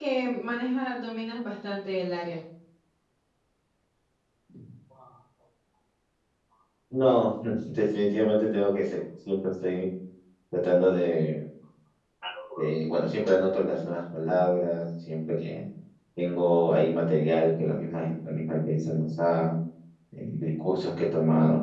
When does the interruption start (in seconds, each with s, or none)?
none